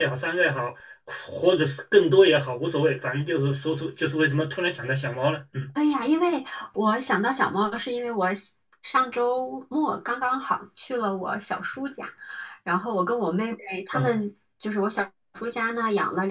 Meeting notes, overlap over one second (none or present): none